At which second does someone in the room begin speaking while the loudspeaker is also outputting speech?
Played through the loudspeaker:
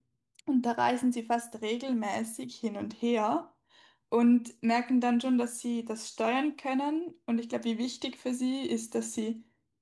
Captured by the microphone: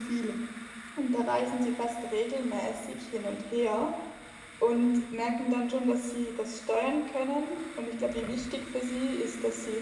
none

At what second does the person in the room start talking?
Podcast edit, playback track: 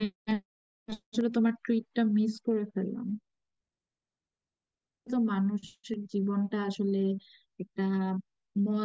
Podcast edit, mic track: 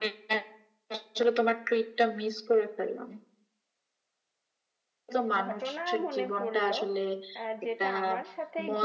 5.4 s

